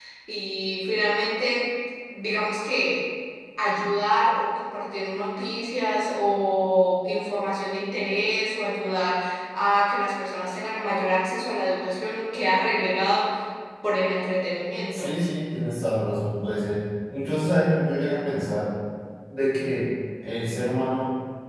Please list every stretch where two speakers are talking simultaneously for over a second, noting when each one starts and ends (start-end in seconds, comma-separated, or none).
none